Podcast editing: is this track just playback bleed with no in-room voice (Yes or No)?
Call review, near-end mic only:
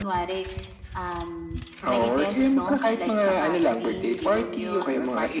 Yes